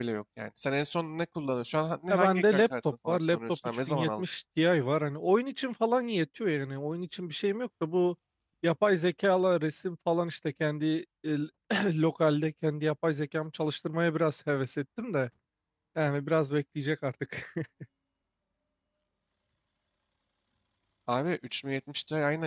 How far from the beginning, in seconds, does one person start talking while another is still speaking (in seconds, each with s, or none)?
2.1 s